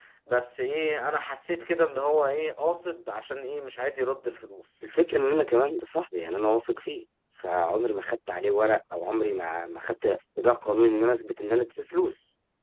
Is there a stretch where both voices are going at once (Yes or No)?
No